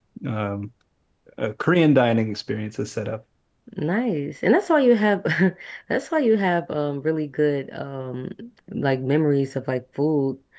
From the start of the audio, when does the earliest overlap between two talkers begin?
none

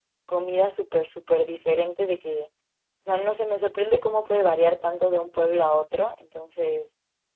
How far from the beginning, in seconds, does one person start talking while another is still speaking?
none

